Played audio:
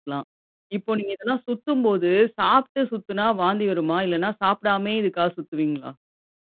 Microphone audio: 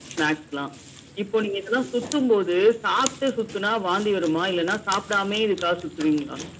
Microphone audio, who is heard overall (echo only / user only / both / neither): echo only